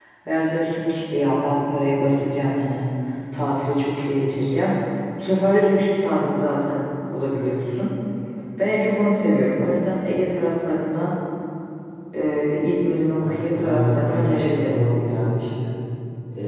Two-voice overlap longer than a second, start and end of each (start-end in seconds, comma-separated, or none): 13.2-14.8